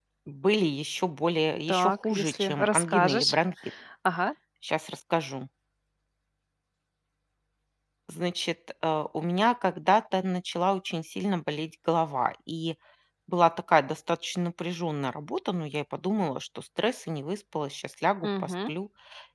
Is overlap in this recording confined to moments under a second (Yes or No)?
No